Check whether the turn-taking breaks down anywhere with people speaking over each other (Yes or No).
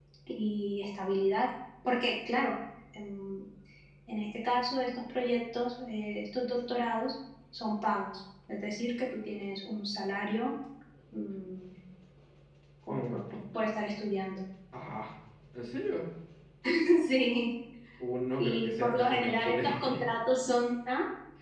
Yes